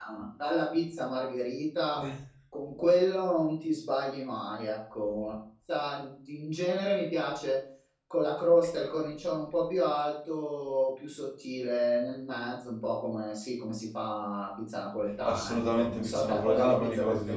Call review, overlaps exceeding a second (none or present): present